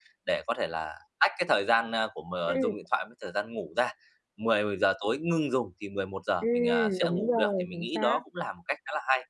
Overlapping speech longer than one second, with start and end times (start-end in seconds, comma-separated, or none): 6.4-8.2